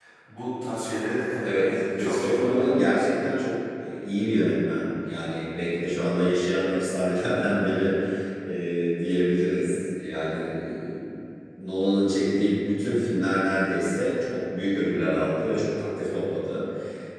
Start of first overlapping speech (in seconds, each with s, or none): 1.4 s